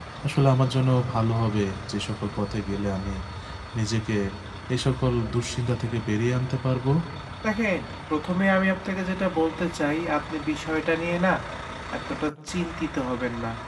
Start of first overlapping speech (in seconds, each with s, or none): none